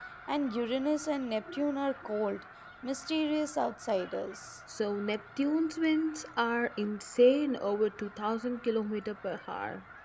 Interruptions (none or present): none